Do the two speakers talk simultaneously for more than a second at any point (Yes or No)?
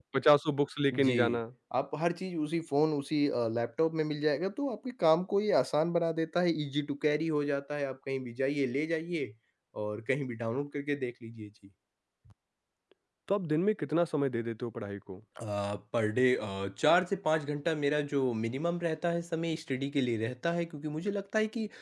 No